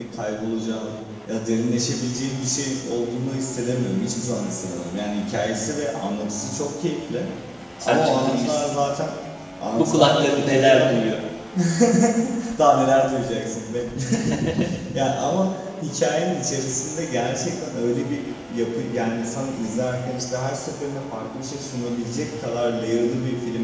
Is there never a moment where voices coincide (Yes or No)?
No